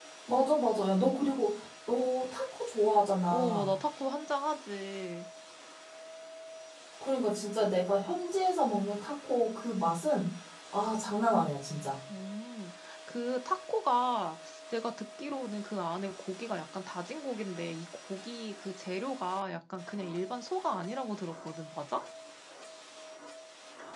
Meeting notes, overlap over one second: none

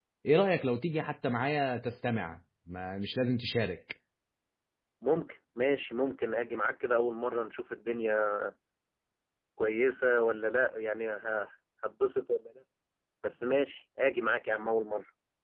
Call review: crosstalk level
none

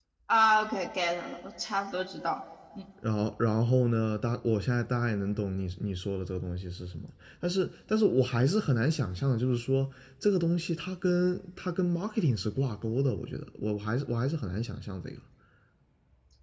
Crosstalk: none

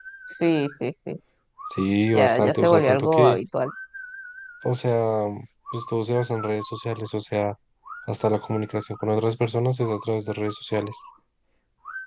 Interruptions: present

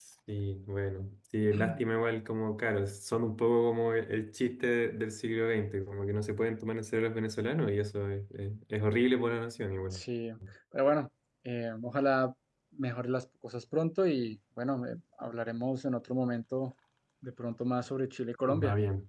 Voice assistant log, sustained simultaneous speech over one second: none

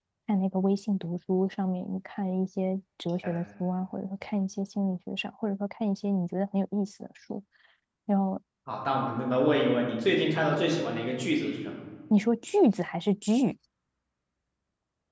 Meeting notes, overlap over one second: none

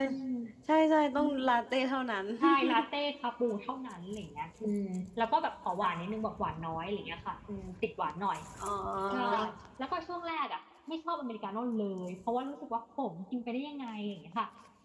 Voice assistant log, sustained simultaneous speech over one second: none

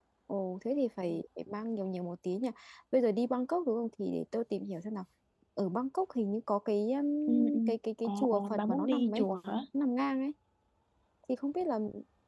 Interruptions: present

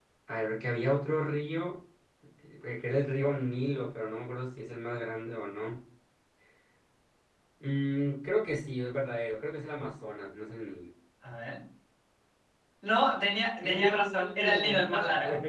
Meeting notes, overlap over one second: present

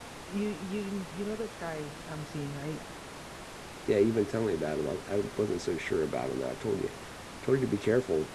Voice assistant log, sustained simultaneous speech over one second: none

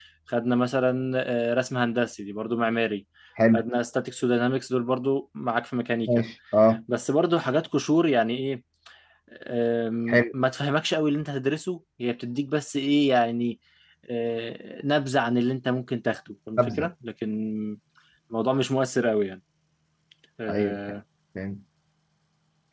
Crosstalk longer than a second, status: none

